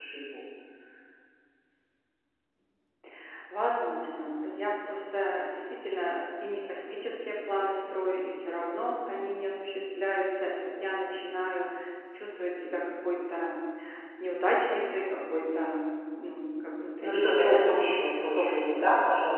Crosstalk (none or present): present